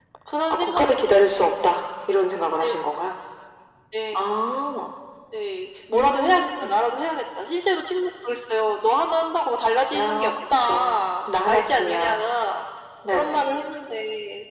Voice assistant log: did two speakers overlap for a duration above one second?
Yes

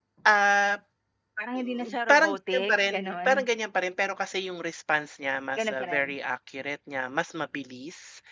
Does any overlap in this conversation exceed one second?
Yes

